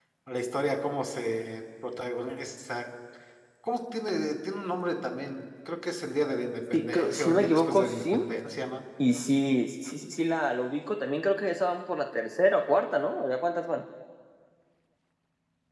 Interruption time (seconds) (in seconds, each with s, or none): 6.7 s